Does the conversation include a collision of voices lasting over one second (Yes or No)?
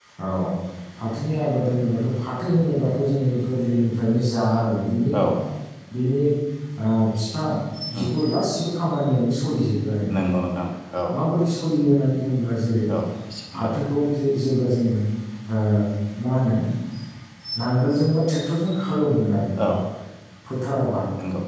No